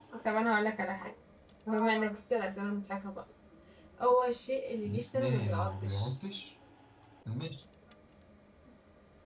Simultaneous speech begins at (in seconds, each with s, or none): 4.8 s